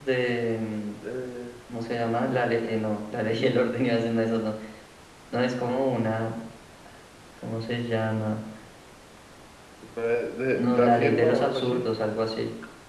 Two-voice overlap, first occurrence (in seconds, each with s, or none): 10.6 s